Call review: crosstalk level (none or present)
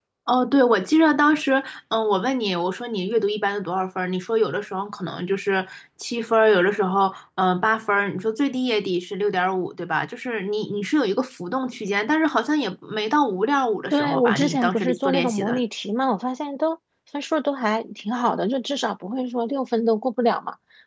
present